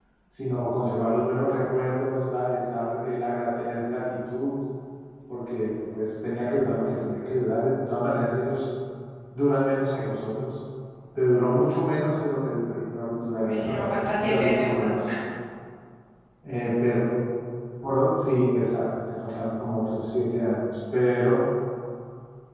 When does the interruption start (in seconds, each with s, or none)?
13.2 s